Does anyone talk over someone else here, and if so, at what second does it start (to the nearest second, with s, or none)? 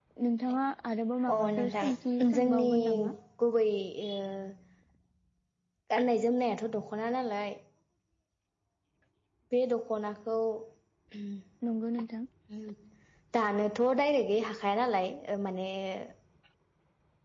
1 s